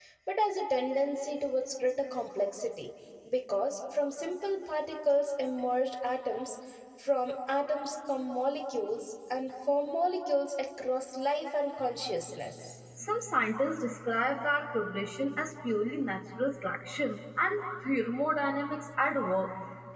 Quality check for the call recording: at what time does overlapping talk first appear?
none

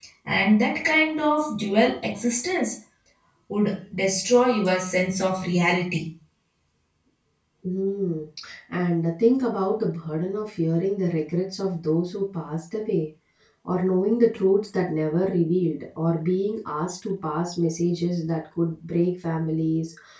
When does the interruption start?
none

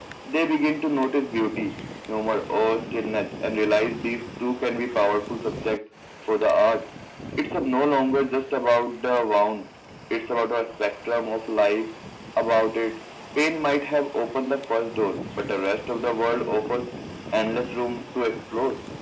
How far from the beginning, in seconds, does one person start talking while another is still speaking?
none

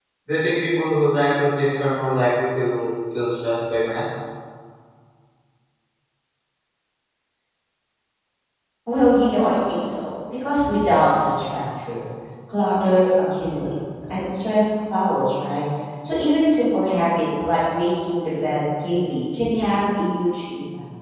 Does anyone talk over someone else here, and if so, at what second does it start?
none

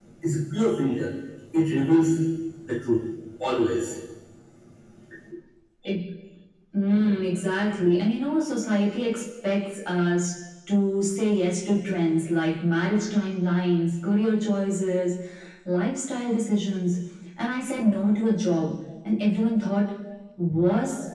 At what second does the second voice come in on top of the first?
none

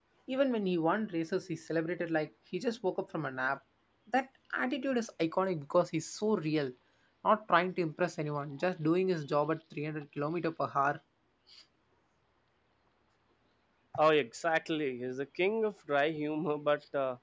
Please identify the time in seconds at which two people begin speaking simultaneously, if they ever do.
none

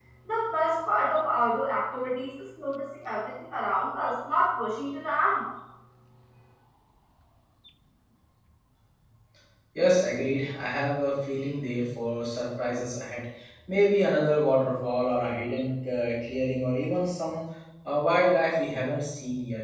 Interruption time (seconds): none

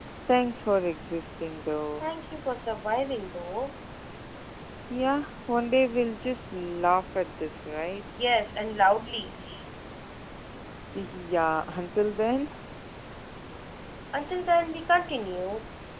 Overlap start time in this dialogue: none

